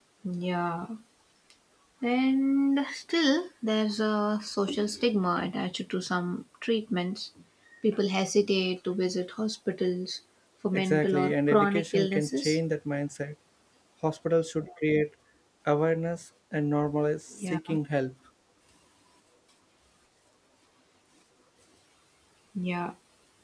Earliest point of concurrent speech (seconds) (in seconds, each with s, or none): 10.7 s